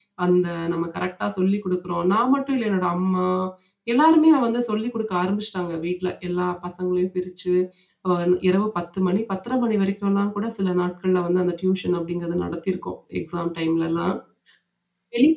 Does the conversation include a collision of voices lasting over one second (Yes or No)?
No